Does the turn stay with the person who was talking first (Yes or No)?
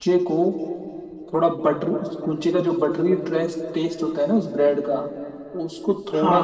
Yes